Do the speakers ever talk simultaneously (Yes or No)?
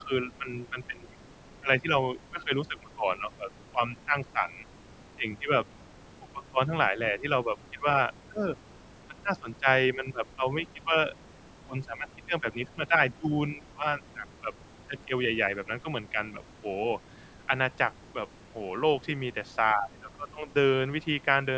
No